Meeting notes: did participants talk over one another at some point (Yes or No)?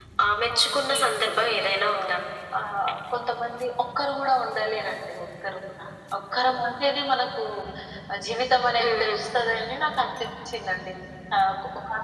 Yes